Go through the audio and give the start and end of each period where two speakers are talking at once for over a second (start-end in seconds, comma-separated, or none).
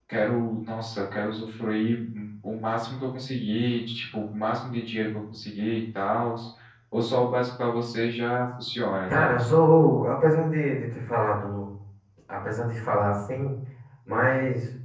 none